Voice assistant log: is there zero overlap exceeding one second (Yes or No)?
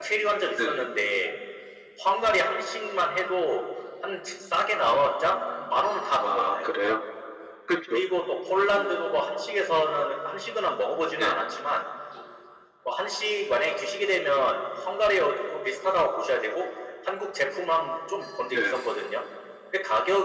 Yes